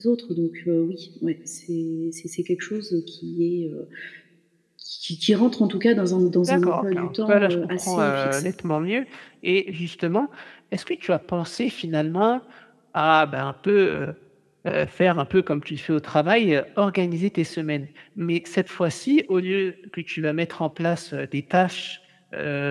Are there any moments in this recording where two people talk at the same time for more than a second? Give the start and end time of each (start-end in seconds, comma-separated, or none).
6.5-8.4